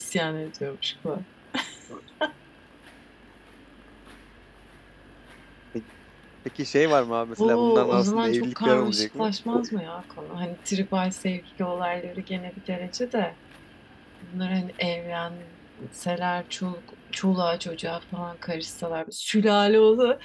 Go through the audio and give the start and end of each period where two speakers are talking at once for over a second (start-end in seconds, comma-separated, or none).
7.4-9.3